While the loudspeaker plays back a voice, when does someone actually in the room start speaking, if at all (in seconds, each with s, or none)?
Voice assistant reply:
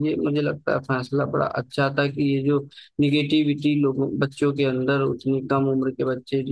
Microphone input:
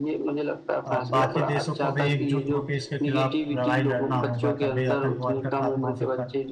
0.9 s